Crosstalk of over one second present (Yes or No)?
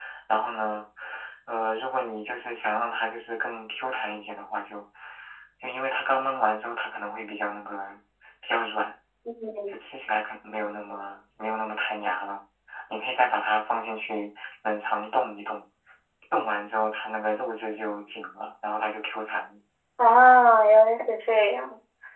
No